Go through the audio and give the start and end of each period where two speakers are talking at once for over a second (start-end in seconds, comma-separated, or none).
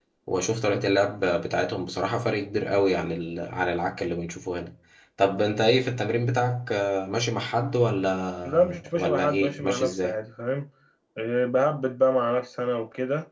8.4-10.1